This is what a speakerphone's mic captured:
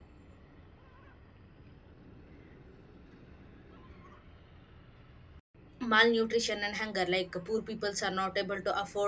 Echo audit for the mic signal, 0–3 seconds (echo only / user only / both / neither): neither